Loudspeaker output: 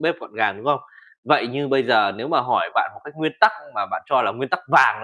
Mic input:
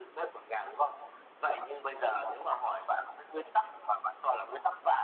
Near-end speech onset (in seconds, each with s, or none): none